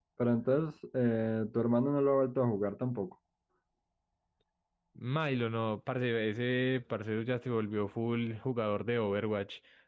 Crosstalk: none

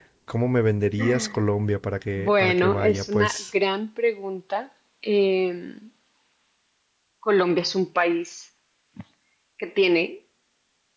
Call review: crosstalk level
present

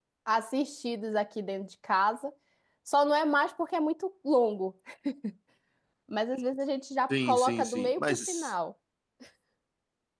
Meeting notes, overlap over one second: present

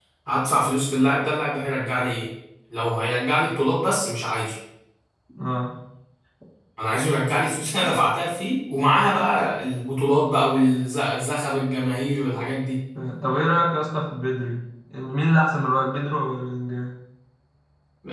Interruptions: none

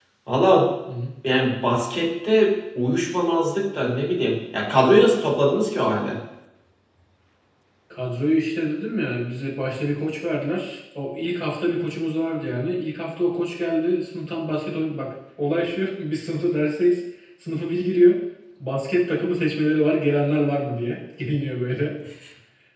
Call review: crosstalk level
none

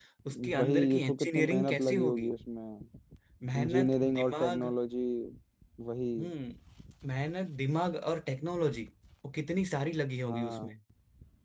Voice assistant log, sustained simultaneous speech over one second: present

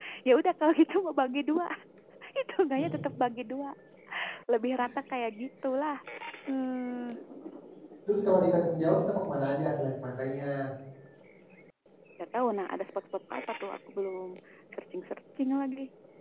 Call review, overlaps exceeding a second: none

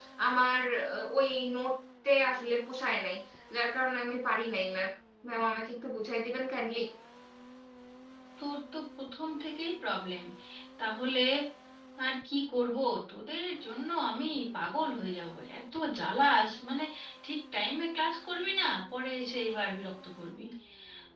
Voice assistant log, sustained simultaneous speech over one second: none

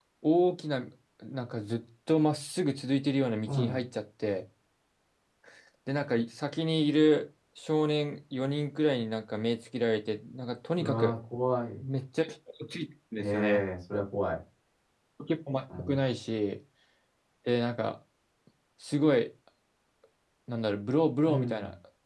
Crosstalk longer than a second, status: none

